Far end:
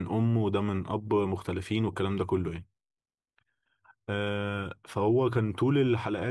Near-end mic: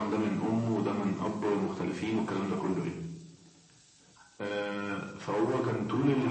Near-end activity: none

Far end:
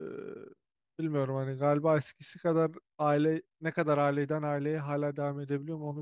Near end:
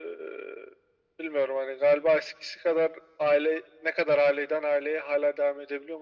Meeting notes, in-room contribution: none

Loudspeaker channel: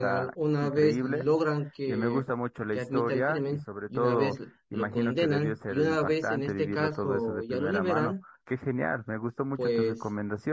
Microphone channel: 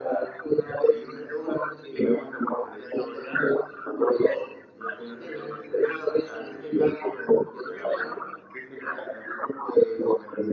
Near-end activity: none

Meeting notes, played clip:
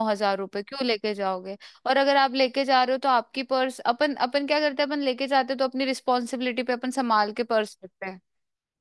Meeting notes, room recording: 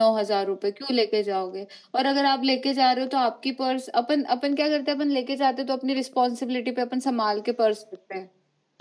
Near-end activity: none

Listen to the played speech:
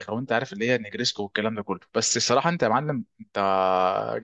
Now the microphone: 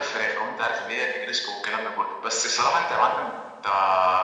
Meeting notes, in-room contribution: none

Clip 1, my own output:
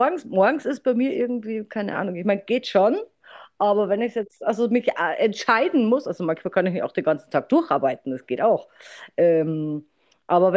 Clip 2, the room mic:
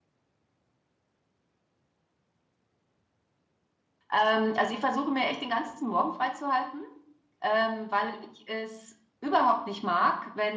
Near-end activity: present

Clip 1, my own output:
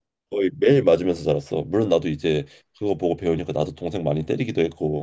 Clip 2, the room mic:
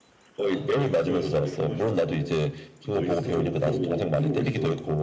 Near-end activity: present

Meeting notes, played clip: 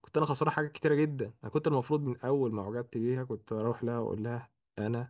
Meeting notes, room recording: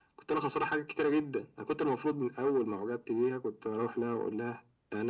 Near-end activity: none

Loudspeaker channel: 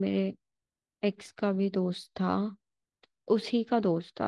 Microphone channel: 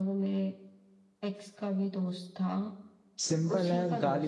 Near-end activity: present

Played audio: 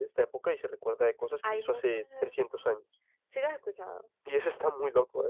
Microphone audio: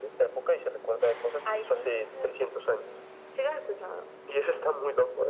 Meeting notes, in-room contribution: none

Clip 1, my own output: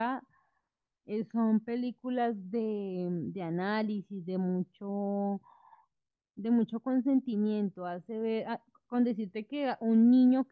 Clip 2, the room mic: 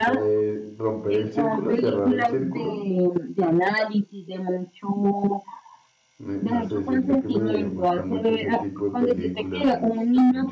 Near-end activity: present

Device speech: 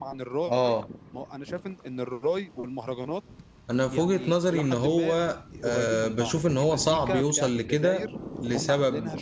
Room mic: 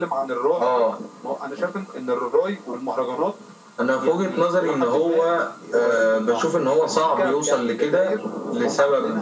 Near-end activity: none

